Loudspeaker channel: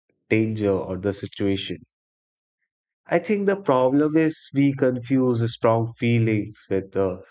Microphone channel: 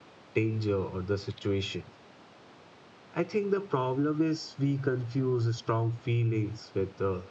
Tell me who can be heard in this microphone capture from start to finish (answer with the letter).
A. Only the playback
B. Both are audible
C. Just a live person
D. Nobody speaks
A